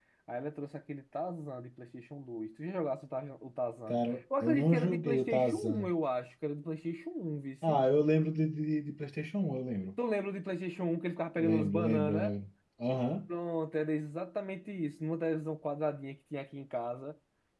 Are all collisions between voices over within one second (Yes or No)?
No